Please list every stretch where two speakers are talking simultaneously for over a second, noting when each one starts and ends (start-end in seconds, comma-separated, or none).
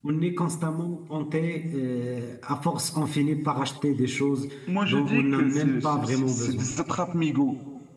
4.9-6.7